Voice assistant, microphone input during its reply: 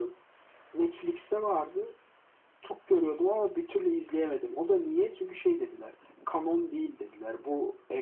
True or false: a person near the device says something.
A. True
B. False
B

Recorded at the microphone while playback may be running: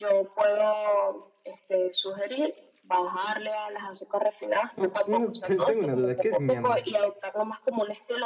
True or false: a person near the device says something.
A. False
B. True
B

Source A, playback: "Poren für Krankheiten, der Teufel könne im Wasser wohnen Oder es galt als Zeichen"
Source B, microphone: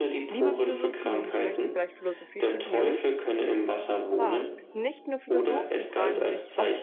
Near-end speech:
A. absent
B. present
B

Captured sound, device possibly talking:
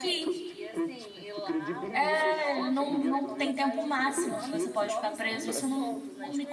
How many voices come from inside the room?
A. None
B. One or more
B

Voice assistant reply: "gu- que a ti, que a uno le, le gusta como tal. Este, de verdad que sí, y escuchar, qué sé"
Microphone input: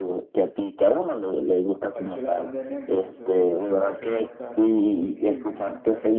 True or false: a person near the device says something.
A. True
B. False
A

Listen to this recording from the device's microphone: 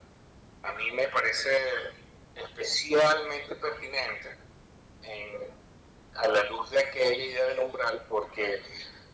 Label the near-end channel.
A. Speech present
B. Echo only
B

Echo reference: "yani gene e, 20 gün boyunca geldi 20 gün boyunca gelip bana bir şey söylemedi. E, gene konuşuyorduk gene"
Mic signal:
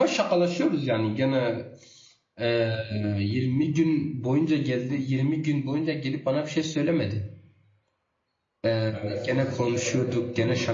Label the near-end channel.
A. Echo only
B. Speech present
B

